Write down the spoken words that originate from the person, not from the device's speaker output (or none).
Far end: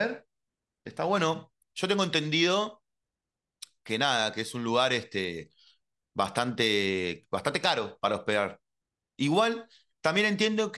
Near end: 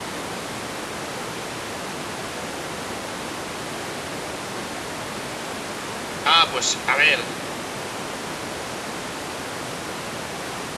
Ah, pues a ver,